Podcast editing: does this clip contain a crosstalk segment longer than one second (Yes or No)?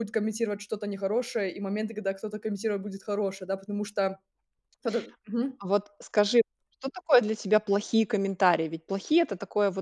No